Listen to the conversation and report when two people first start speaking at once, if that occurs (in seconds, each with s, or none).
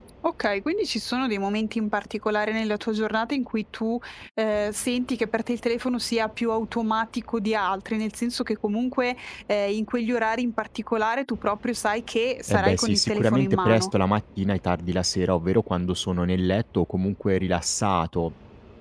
12.5 s